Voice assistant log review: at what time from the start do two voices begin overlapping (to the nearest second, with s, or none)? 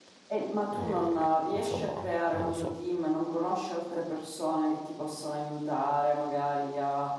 1 s